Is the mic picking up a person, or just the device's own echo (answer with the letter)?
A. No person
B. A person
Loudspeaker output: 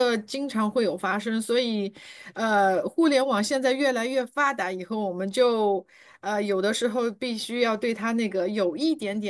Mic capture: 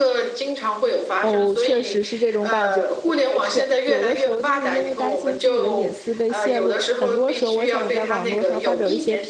B